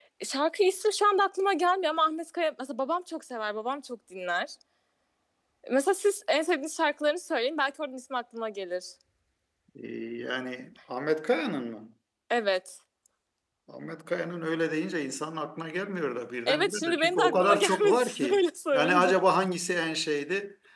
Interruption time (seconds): 16 s

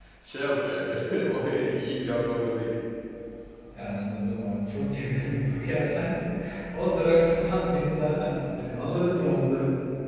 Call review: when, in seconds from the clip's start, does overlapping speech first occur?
none

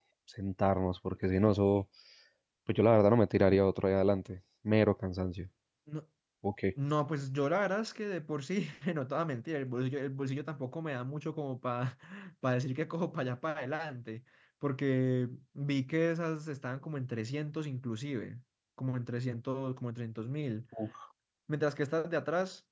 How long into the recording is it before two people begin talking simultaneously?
none

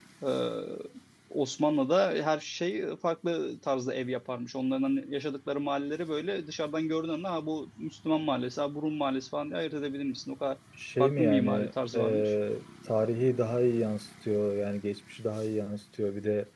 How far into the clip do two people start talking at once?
11 s

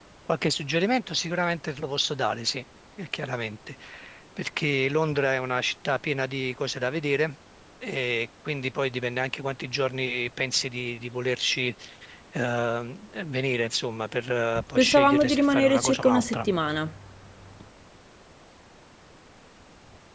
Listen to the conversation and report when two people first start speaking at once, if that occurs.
15 s

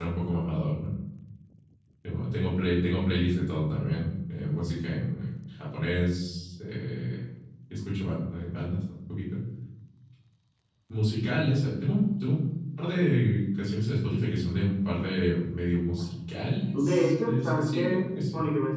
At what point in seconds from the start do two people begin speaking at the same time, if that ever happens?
17 s

